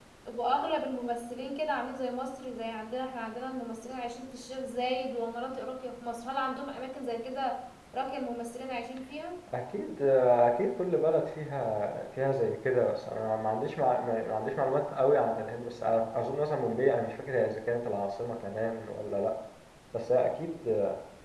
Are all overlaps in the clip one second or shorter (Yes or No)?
Yes